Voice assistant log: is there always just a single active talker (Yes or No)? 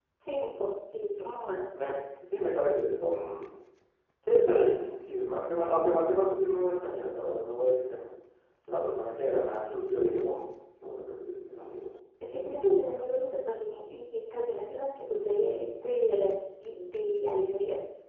Yes